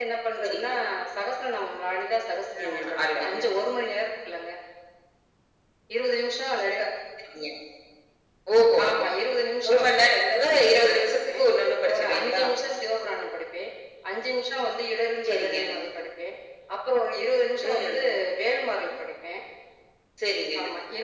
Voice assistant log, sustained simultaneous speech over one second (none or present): present